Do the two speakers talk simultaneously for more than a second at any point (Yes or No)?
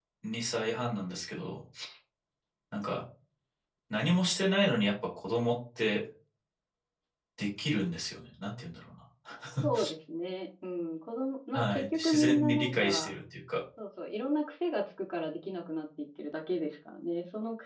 Yes